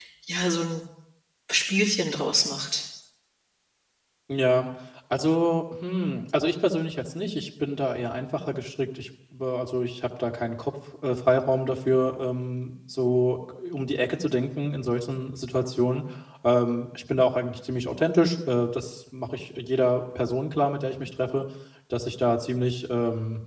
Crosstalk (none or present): none